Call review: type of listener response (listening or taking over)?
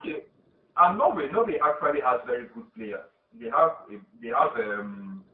listening